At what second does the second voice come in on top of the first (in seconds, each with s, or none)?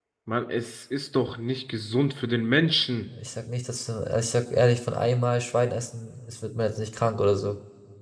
none